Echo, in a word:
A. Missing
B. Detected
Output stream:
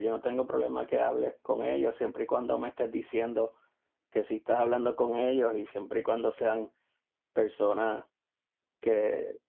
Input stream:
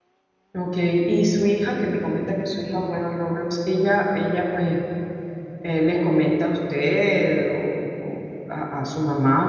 A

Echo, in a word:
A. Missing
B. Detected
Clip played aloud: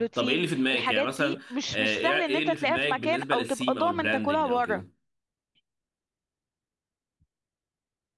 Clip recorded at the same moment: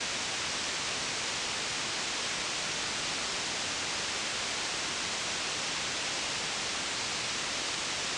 A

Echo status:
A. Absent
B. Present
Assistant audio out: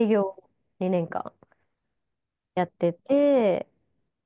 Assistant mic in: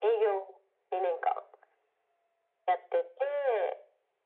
B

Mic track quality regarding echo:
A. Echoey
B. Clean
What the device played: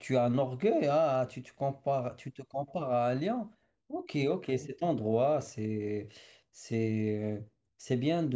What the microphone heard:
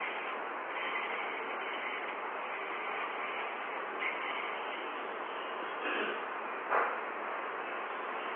B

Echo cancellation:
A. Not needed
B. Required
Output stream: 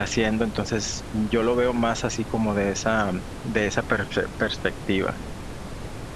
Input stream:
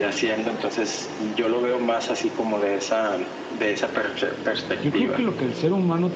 B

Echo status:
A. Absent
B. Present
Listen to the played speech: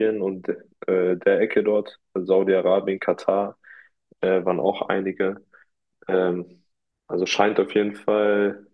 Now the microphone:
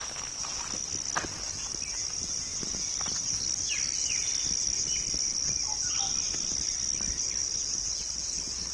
A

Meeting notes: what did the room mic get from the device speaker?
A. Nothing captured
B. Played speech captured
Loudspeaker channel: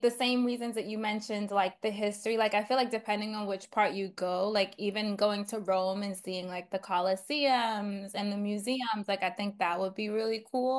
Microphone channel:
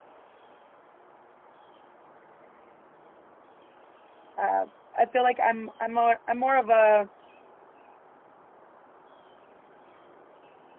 A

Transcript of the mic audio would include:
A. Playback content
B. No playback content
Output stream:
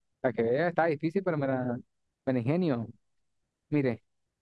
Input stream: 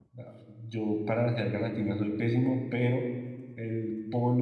B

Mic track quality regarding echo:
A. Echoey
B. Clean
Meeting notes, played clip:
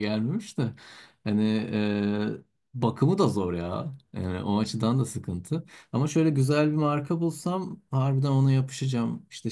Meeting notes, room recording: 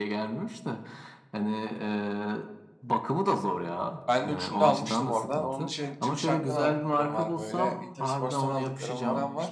A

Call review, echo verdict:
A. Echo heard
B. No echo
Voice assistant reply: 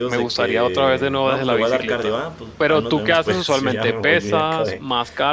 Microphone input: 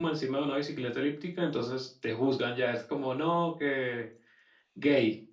B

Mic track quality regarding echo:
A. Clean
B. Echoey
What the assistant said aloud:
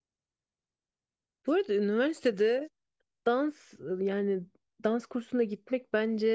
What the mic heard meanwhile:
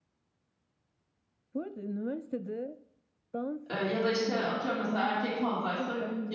B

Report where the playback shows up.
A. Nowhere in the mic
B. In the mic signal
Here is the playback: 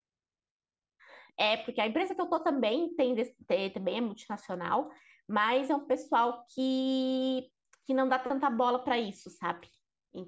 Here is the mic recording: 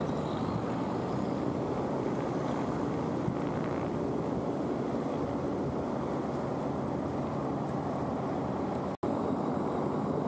A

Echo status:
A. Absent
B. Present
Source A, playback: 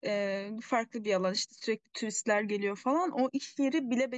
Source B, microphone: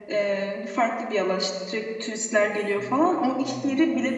B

